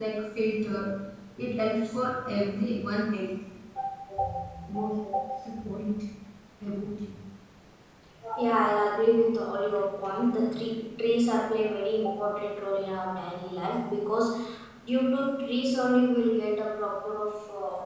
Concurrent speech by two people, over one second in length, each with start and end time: none

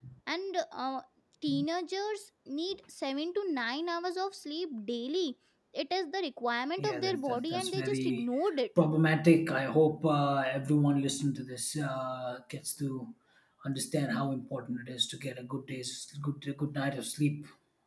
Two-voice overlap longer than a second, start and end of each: 6.8-8.2

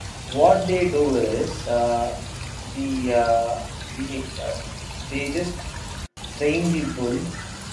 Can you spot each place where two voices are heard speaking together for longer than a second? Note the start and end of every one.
none

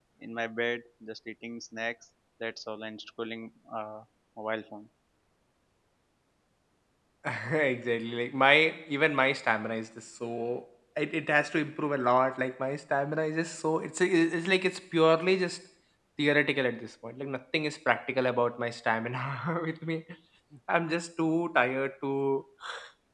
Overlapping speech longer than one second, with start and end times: none

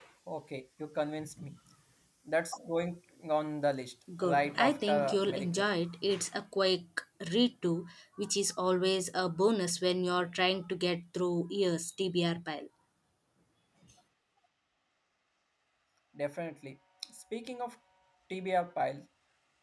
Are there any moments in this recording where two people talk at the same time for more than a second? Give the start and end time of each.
4.2-5.7

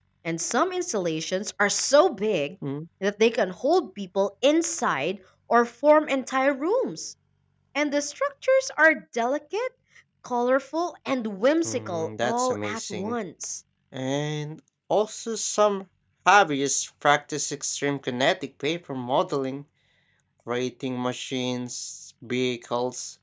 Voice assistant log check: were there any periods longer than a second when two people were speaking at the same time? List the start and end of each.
11.7-13.2

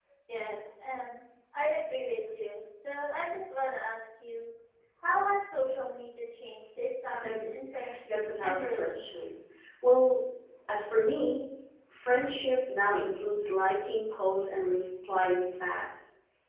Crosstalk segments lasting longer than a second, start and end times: 8.1-9.3

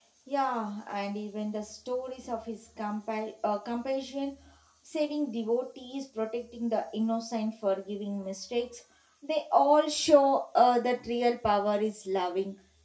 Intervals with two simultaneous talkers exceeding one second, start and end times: none

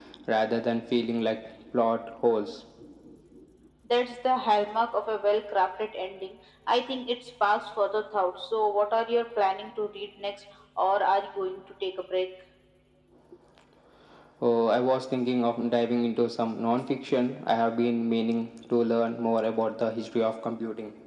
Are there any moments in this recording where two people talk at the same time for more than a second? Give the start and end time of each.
none

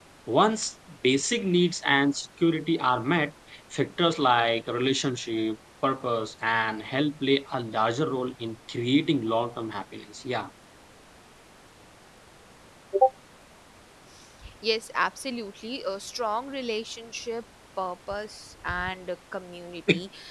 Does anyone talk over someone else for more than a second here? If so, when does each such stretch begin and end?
none

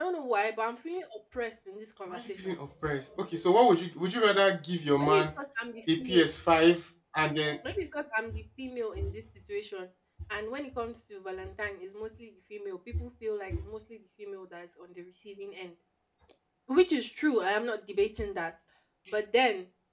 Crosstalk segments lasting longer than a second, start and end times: none

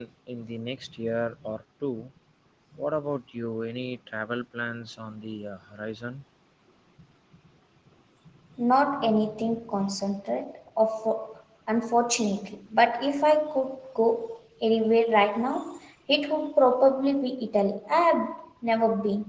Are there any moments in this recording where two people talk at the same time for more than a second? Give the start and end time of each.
none

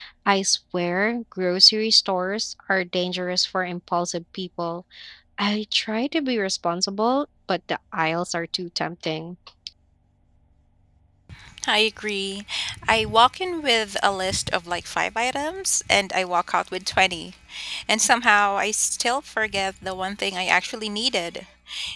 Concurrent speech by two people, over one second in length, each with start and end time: none

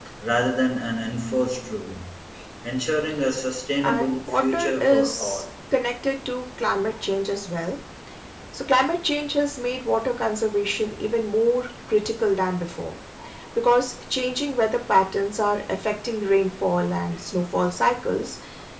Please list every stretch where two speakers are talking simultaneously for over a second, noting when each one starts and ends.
3.8-5.4

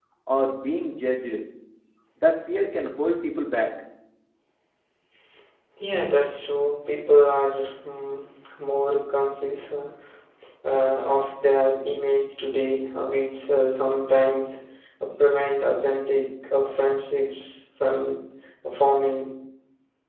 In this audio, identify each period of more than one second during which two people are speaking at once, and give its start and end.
none

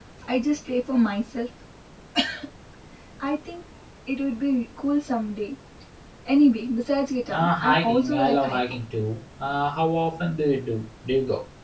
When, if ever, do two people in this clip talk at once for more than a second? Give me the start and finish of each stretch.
7.3-8.6

